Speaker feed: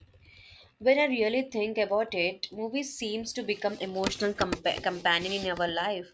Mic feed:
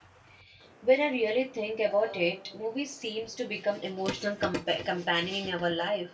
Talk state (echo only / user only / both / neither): both